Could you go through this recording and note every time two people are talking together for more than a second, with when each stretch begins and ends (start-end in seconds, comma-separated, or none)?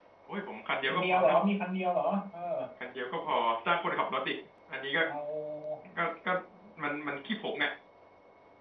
none